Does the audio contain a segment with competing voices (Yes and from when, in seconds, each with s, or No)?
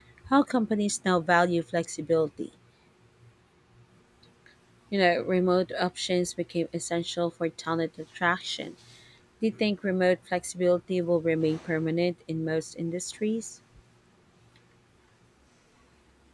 No